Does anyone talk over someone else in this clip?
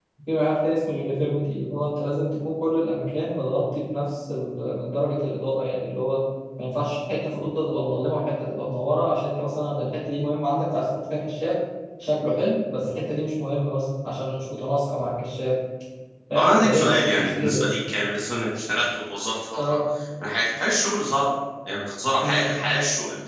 Yes, from 16.4 s

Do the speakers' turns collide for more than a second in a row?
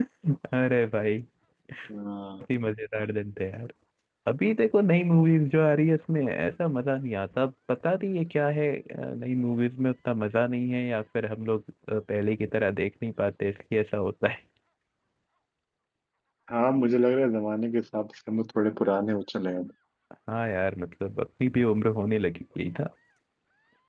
No

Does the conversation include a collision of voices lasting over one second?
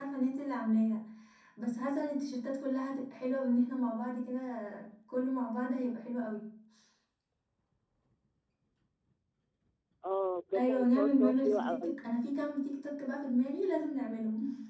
Yes, from 10.6 s

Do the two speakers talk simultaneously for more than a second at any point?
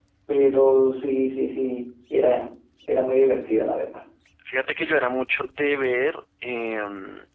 No

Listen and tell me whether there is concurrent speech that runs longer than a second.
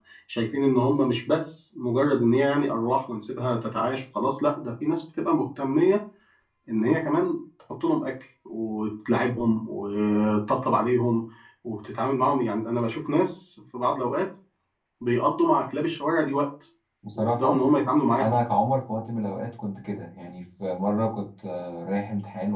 No

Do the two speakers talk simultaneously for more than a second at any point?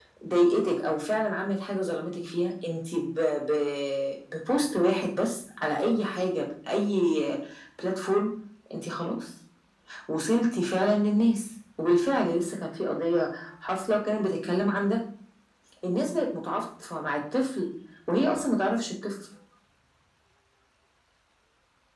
No

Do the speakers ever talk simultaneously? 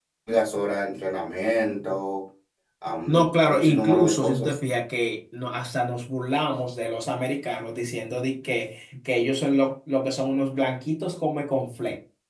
Yes, from 3.1 s

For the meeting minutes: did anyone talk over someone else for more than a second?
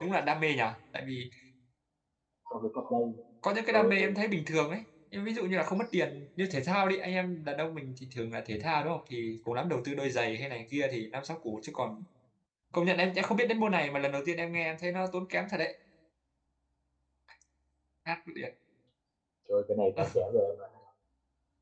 No

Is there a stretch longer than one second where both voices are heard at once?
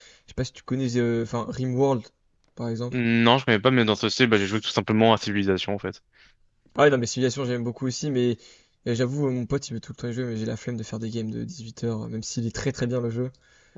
No

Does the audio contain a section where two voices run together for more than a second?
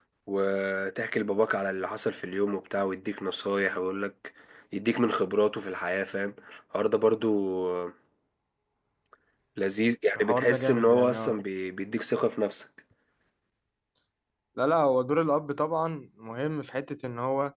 Yes, from 10.2 s

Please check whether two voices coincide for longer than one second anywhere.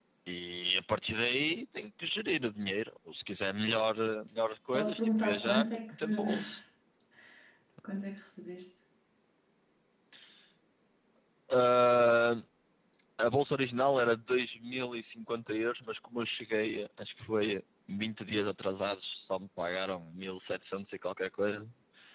Yes, from 4.7 s

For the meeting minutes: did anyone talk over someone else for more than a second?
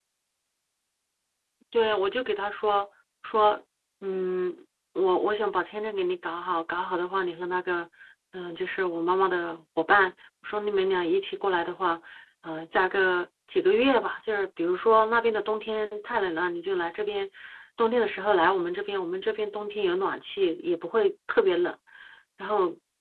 No

